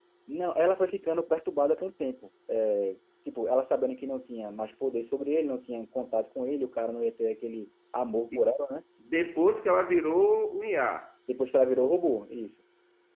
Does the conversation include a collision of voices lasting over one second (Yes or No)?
No